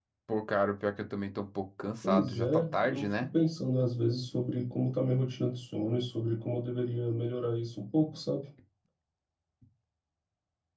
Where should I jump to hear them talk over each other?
2.0 s

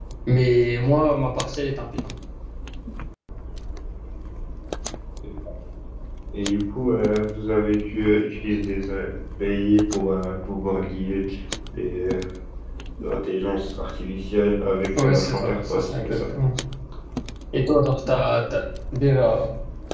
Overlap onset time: 14.9 s

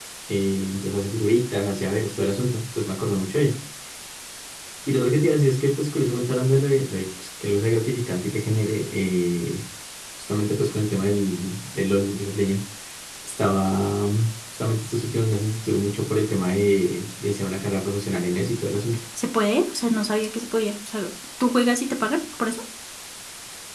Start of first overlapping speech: none

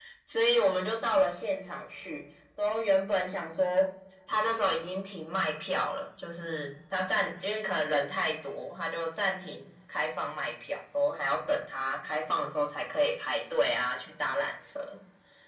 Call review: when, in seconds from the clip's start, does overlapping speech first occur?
none

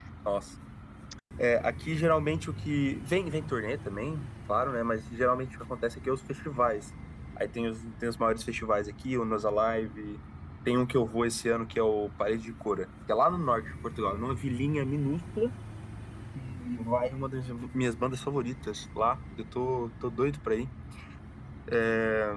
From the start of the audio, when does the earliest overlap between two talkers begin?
none

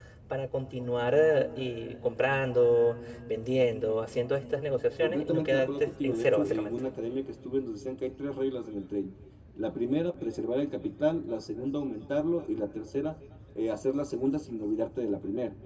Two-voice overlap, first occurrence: 5.0 s

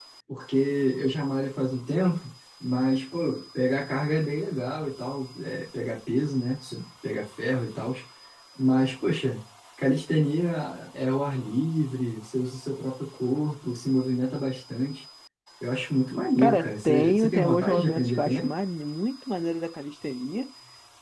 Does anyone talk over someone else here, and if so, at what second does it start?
16.4 s

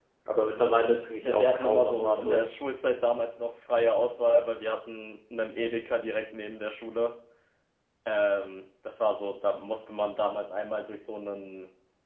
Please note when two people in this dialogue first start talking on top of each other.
1.2 s

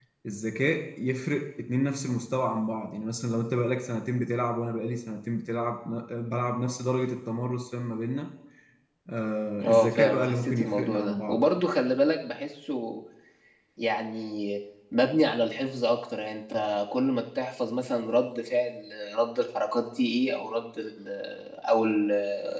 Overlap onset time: 9.6 s

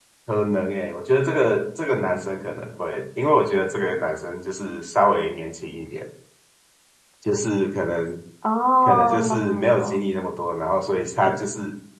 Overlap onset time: 8.8 s

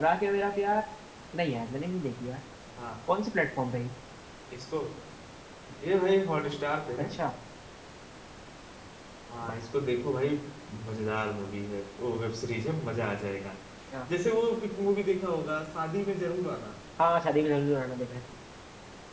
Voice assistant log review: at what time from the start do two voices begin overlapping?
none

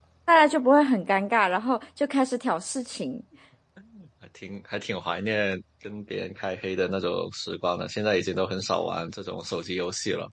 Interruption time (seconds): none

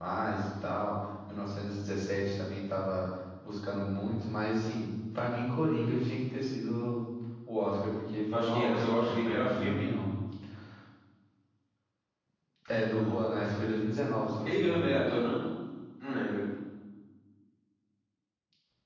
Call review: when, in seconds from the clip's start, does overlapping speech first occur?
8.3 s

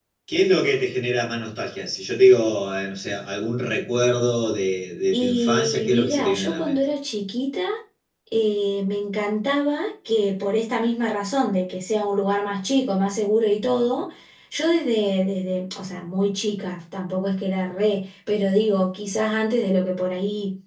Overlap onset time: 5.1 s

